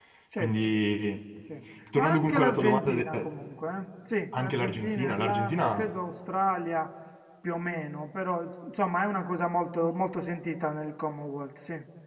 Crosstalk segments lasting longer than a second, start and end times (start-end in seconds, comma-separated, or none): 2.0-3.2, 4.3-5.9